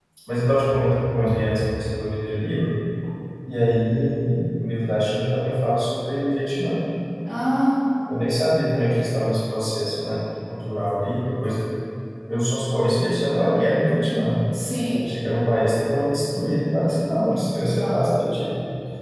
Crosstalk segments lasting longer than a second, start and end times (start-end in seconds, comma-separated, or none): none